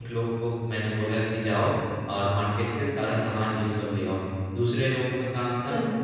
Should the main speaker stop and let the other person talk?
No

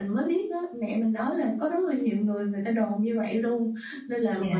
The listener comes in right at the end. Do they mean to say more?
No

